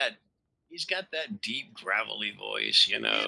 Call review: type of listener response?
taking over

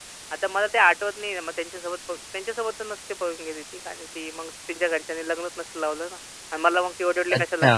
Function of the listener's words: taking over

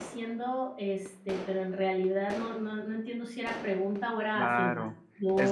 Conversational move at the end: taking over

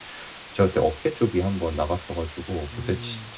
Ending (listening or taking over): listening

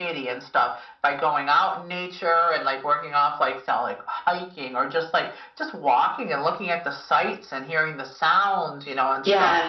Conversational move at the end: taking over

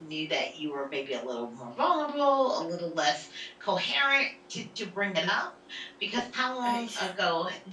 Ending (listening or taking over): listening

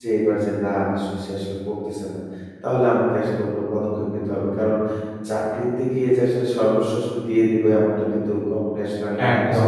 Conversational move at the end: listening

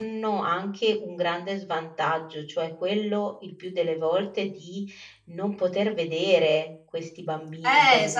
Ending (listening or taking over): taking over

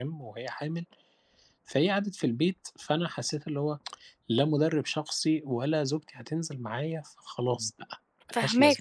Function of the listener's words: taking over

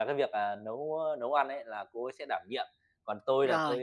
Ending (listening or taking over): listening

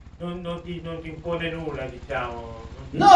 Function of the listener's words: taking over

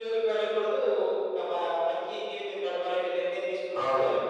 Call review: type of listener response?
taking over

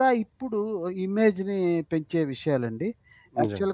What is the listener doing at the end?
listening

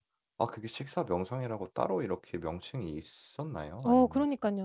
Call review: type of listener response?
taking over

